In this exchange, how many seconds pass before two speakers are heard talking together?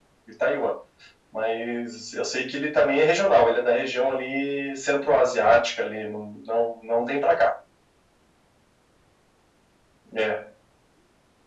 none

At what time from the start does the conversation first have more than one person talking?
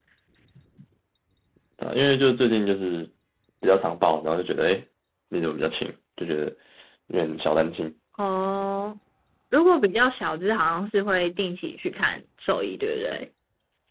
none

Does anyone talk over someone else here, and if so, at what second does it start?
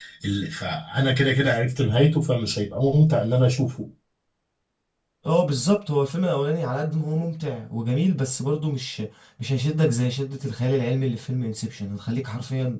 none

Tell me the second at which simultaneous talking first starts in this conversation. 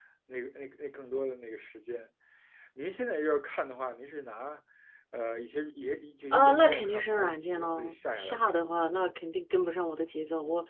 6 s

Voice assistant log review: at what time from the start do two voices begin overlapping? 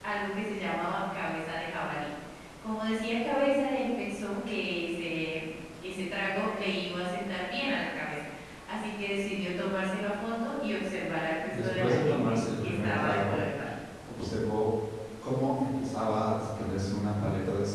11 s

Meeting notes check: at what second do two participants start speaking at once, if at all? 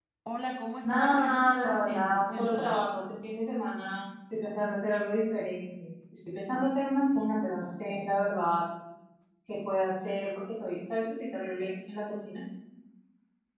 1 s

